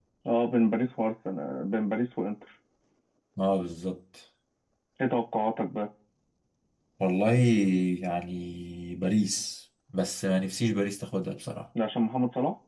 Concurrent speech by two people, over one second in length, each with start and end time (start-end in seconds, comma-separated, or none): none